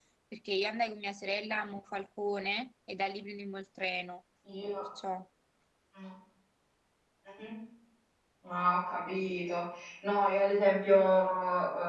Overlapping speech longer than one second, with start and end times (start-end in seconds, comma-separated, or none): none